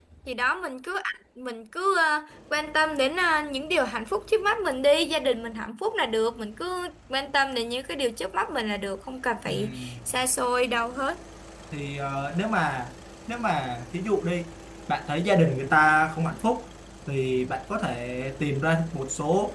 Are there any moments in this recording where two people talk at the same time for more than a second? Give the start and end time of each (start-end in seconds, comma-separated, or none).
none